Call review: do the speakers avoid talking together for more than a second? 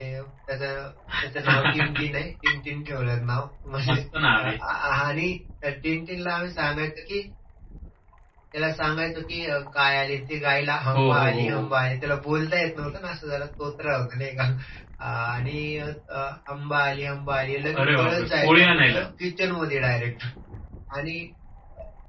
No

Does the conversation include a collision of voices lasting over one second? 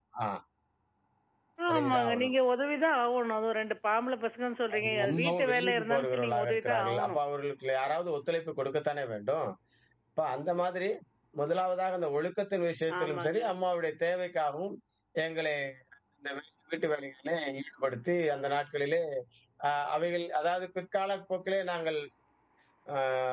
Yes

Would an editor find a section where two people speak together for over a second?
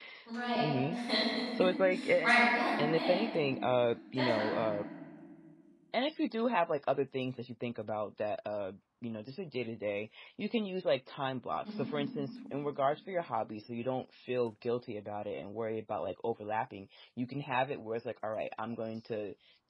No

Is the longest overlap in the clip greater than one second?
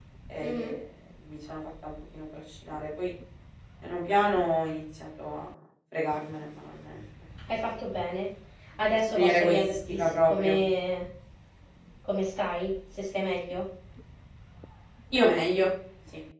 Yes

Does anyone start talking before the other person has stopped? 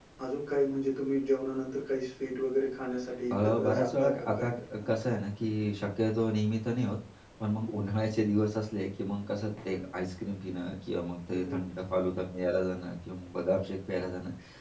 Yes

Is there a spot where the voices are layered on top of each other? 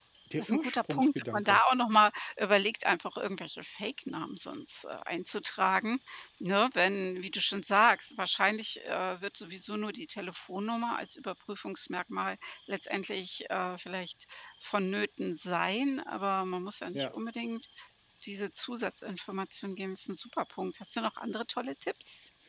Yes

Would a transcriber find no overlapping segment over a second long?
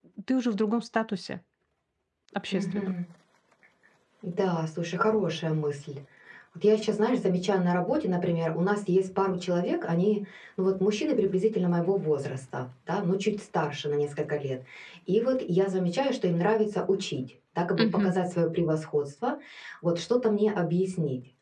Yes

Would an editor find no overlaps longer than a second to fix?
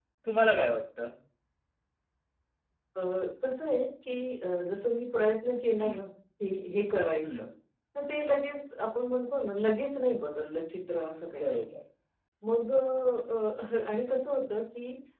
Yes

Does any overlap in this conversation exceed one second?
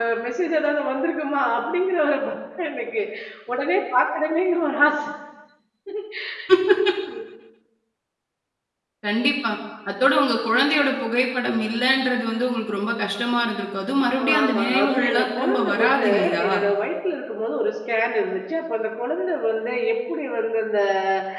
Yes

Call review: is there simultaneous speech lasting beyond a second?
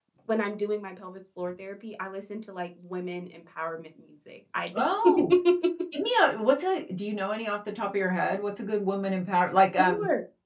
No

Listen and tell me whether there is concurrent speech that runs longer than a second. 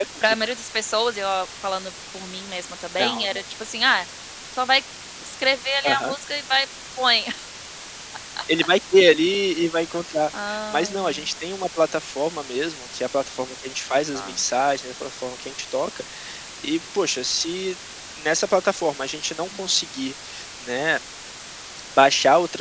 No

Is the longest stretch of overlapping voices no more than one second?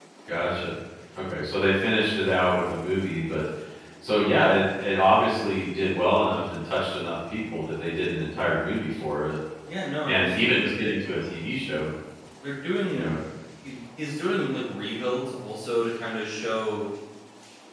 No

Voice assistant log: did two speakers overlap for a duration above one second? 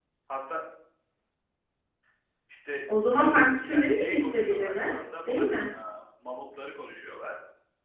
Yes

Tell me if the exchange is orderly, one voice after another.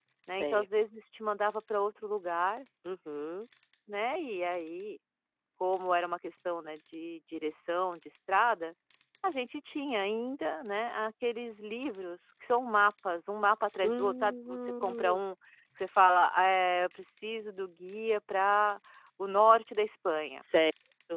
No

